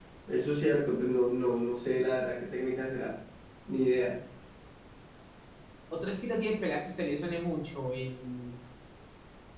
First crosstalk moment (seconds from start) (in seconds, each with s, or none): none